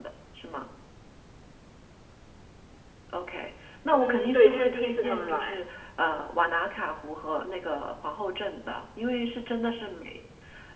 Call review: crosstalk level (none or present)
present